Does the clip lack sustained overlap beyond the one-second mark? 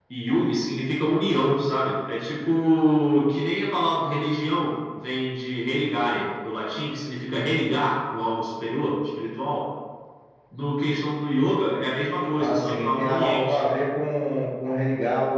No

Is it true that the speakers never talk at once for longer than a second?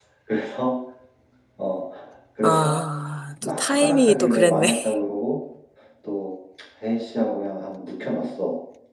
No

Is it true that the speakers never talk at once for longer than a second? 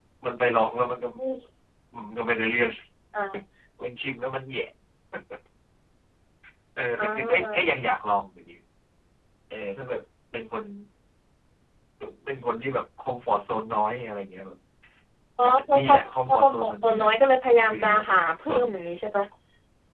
No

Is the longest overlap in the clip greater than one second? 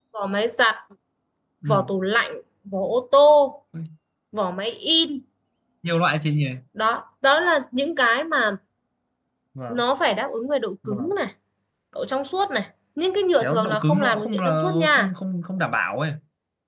Yes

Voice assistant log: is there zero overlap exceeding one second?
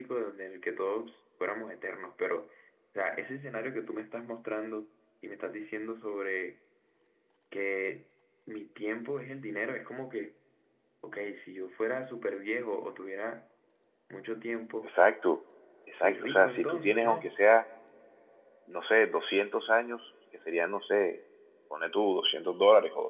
No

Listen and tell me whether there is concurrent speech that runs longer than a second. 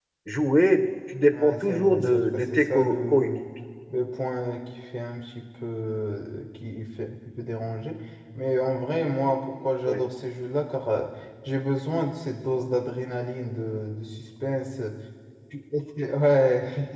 Yes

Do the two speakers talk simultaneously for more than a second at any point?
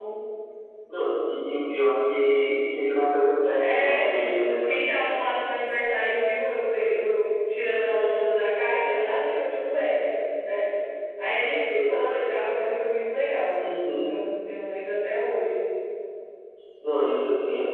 No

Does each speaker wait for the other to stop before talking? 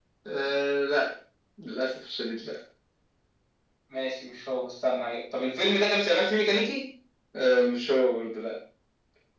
Yes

